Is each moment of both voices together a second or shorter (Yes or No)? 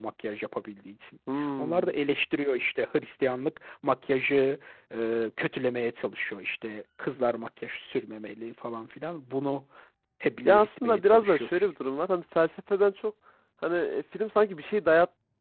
No